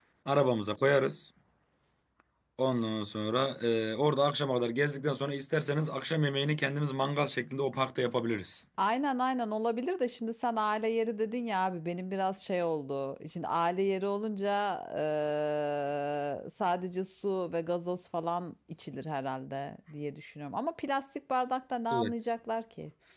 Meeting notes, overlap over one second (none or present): none